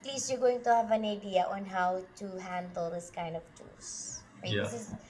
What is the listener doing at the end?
listening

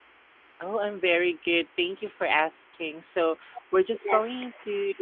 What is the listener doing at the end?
listening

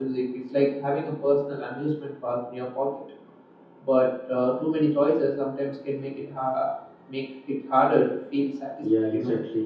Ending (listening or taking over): taking over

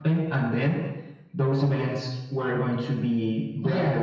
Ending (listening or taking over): taking over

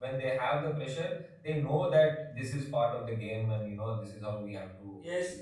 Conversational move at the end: taking over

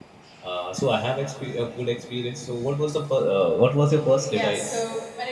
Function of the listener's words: taking over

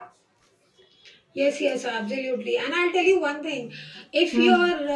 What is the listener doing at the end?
listening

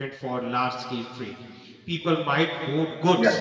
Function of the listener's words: listening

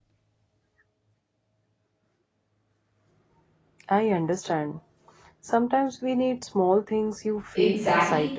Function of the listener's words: taking over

